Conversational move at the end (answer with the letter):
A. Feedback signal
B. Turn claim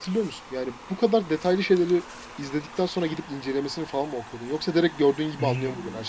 B